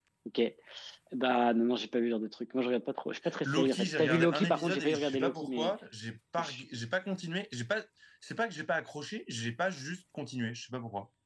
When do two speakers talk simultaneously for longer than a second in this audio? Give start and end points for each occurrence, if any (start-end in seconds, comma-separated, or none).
3.5-5.7